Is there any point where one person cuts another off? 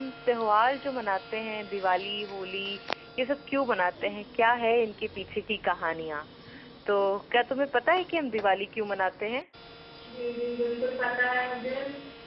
No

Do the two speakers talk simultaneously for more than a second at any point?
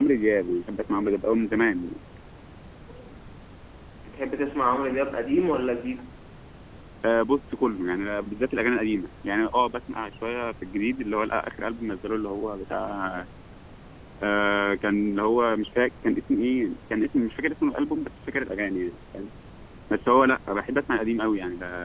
No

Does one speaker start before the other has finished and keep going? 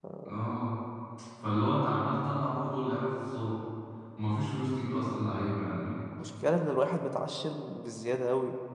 No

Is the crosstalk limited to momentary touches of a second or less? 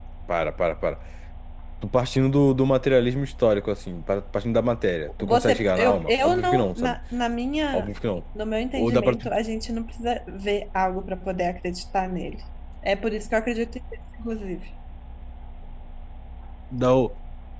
No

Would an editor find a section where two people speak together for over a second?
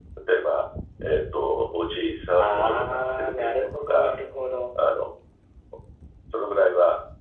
Yes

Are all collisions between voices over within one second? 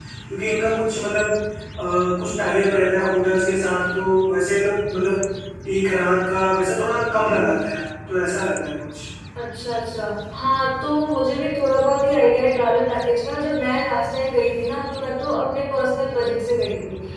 Yes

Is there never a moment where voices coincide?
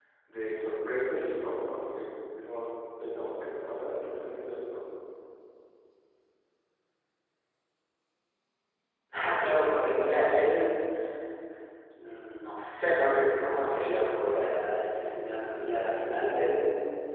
Yes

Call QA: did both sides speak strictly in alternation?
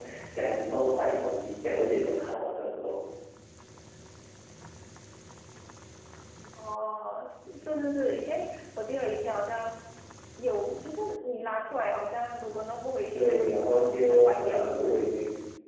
No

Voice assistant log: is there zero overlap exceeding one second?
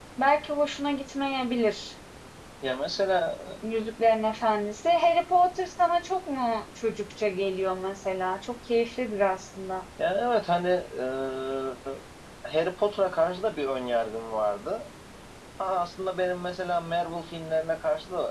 Yes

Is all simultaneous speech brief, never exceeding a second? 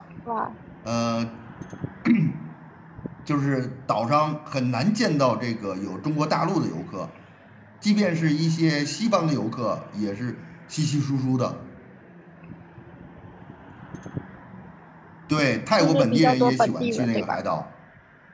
No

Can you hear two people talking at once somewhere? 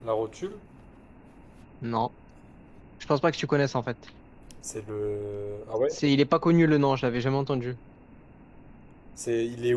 No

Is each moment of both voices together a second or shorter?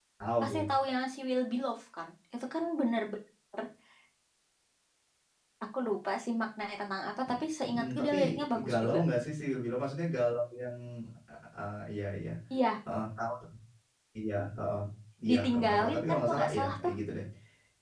No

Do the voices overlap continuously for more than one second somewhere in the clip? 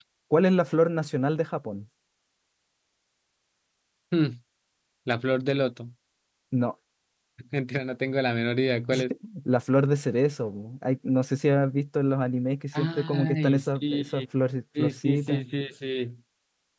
Yes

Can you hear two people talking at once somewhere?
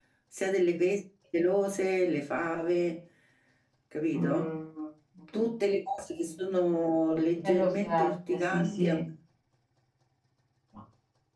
Yes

